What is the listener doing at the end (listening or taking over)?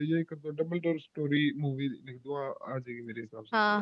taking over